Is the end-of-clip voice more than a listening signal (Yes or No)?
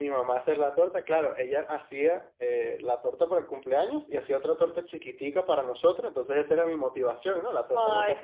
Yes